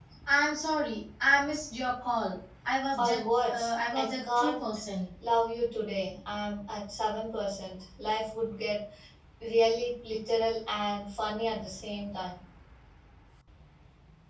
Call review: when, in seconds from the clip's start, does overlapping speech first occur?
3.0 s

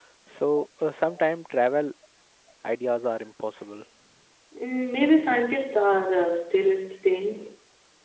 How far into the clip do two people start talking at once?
none

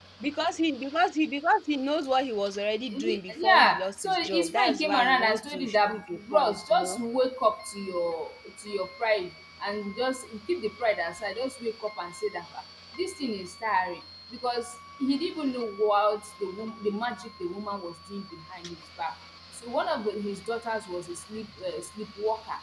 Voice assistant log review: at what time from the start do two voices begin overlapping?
2.9 s

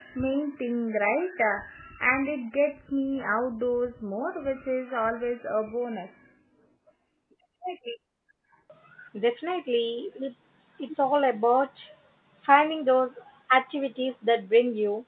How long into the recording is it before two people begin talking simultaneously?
none

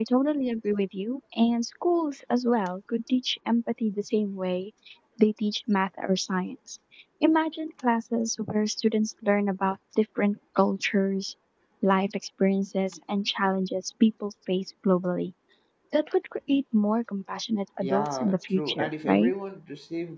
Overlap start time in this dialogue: 17.8 s

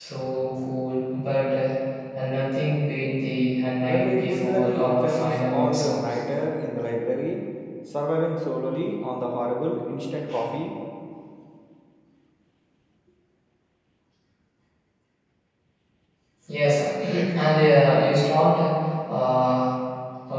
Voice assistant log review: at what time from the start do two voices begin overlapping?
3.9 s

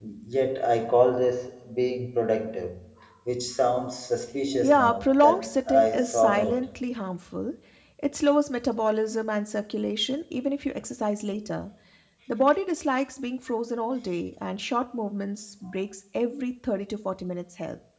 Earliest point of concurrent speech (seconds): 4.6 s

